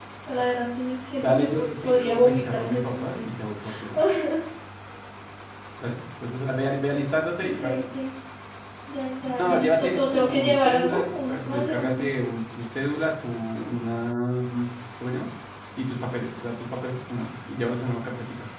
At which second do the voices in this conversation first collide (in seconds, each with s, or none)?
1.2 s